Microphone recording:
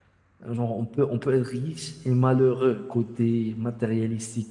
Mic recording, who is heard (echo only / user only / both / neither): user only